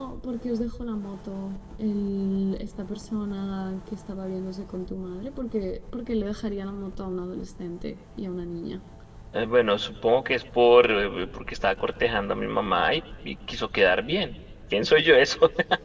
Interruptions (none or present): none